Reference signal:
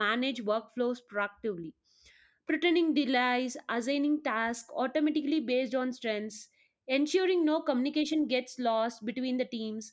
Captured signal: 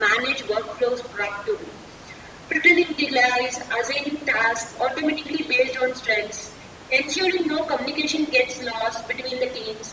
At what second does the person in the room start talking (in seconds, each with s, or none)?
none